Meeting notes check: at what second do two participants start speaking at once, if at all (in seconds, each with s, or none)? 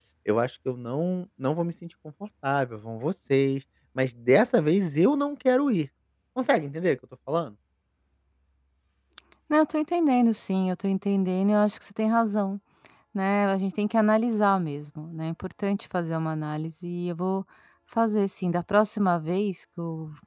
none